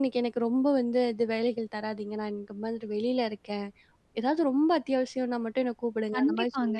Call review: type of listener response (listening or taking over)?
taking over